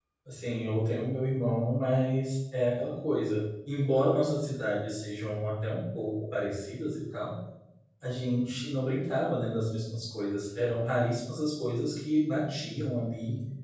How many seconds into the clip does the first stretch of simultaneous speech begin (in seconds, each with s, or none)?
none